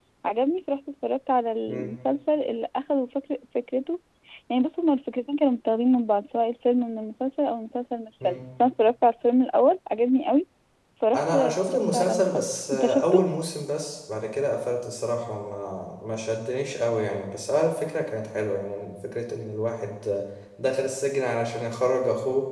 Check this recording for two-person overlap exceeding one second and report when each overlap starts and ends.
11.1-13.2

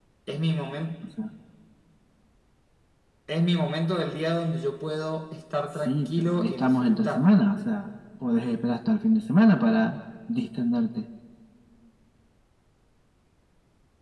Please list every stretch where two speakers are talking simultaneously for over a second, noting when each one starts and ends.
5.8-7.3

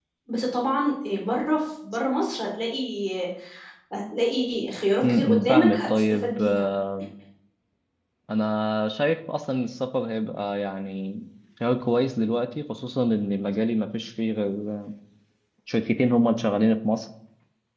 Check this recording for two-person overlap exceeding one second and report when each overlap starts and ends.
5.1-6.7

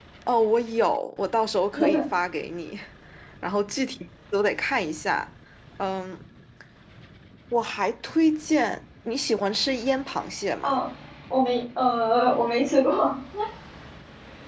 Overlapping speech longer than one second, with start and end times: none

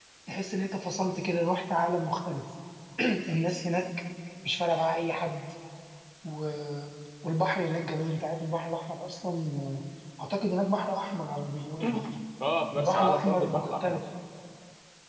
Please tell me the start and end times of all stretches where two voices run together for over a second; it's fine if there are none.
12.8-14.0

